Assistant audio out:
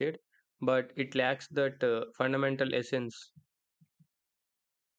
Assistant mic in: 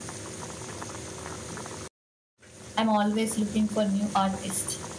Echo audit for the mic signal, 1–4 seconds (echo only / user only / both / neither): user only